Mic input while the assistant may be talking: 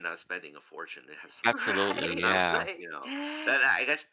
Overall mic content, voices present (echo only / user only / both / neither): both